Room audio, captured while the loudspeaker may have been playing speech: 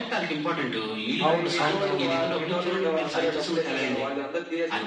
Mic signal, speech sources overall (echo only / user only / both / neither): both